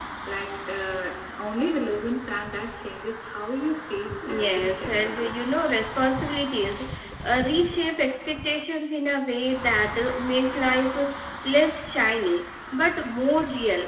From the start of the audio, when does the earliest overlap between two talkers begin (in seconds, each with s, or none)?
4.2 s